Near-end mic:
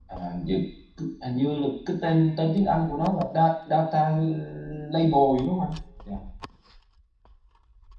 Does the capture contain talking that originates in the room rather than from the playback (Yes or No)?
Yes